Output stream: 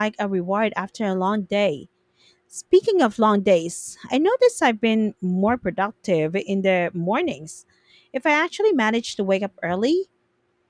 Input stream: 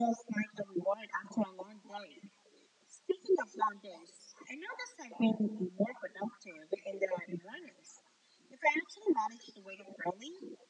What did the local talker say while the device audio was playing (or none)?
none